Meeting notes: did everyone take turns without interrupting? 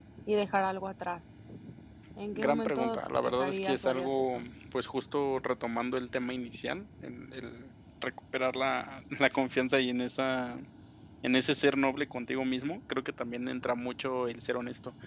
No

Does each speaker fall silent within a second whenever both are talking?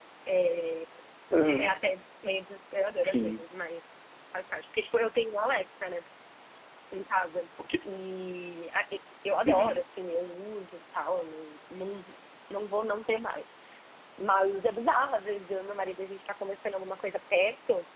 Yes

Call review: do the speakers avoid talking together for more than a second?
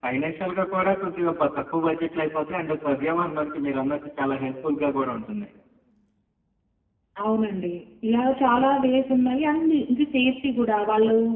Yes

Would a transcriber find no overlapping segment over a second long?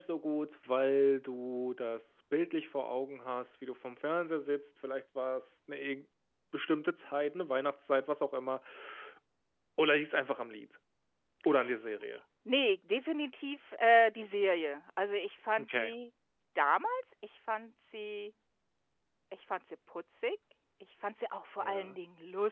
Yes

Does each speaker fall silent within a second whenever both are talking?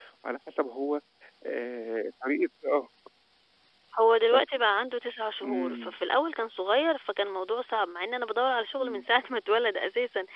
Yes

